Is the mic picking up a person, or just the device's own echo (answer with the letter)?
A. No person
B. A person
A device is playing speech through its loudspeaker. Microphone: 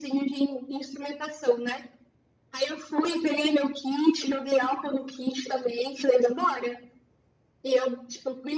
A